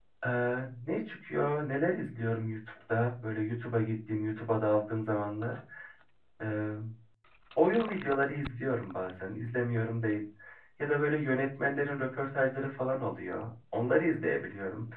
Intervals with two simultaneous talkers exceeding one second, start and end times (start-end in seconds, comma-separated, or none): none